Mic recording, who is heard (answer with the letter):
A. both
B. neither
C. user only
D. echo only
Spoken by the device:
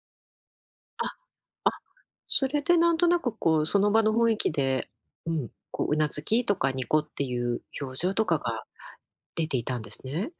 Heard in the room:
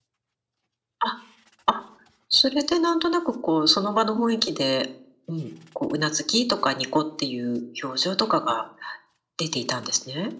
D